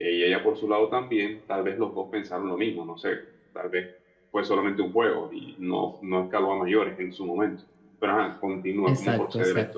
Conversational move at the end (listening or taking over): taking over